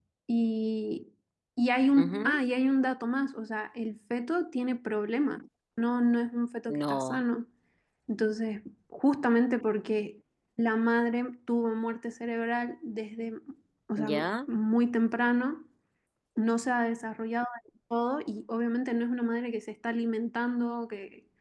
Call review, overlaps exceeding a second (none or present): none